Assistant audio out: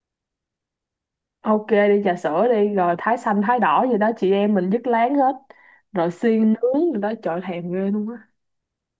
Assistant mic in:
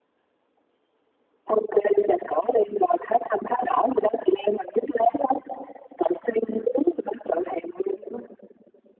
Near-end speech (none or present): none